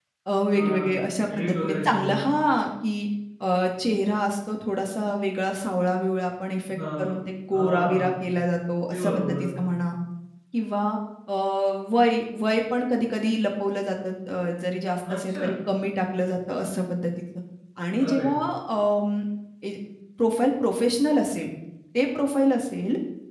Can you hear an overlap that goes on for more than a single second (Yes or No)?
Yes